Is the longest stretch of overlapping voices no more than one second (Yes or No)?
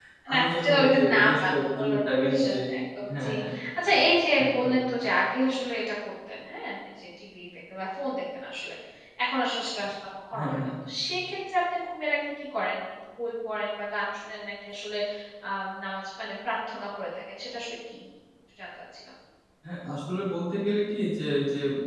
No